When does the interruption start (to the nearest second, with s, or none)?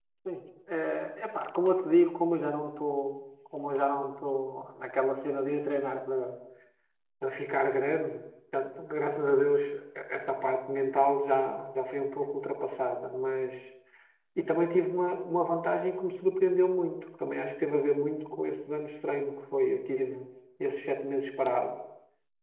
none